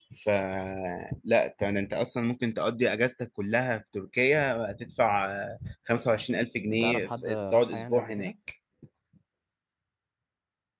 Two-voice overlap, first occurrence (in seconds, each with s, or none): 6.7 s